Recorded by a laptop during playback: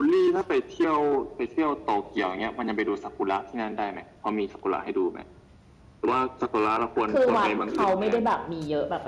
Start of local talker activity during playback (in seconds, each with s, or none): 7.1 s